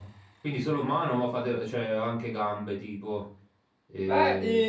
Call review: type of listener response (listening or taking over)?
taking over